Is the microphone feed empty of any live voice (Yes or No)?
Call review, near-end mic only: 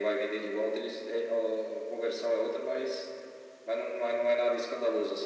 Yes